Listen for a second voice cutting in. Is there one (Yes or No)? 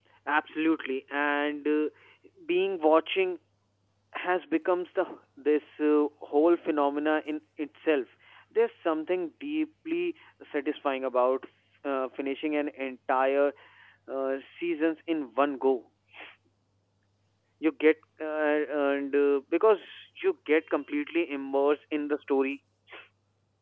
No